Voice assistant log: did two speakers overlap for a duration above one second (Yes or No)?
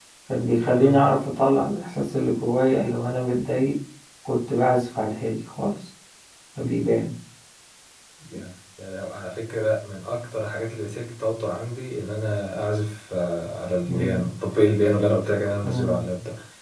No